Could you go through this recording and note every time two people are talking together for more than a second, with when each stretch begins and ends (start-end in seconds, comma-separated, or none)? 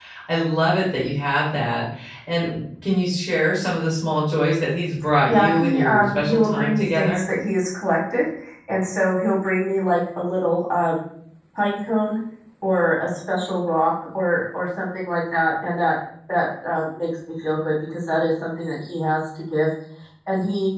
5.2-7.3